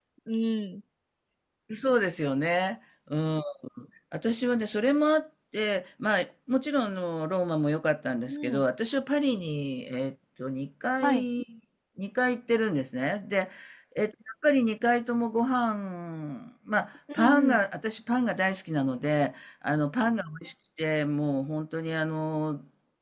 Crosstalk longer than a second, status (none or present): none